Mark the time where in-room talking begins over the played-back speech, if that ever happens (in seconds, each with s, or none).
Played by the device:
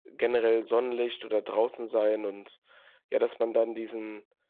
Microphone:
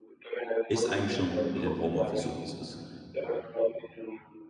0.7 s